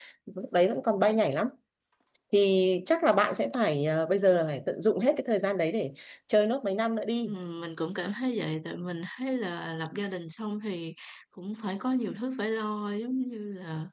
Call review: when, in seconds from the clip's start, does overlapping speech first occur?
none

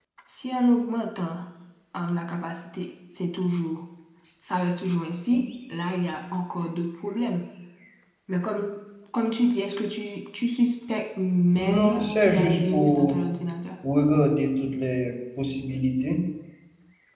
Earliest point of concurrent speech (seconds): 11.6 s

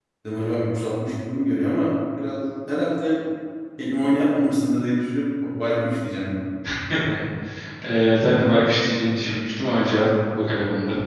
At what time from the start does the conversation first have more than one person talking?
none

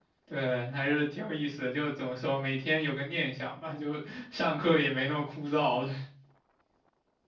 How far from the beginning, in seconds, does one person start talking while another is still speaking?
none

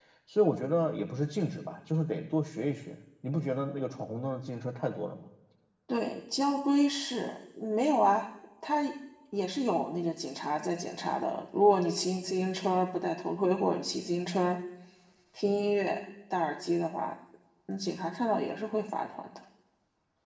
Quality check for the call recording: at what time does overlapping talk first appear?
none

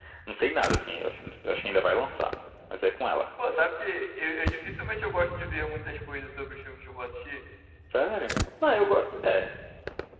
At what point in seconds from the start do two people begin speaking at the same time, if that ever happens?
none

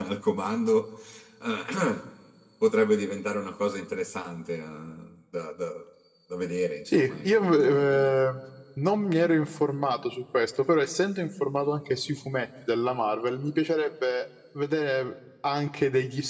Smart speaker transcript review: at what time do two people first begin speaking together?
6.9 s

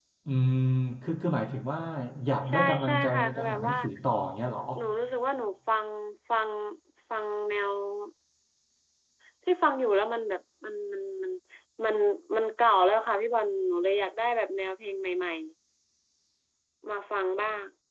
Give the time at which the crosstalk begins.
2.5 s

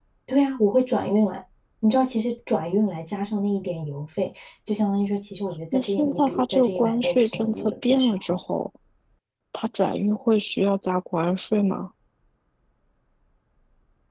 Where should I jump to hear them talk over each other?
5.7 s

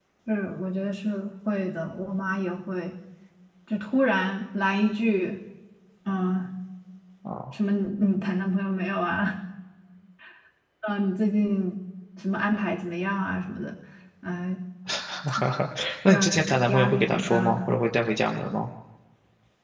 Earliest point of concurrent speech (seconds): 16.1 s

